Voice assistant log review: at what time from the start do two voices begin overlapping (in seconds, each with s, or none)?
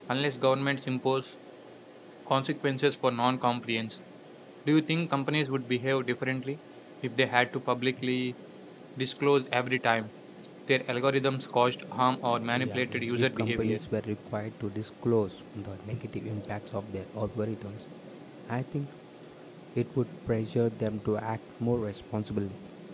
12.5 s